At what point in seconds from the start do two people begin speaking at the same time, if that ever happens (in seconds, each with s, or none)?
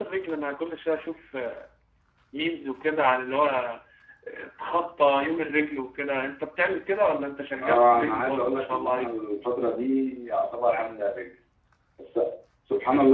7.6 s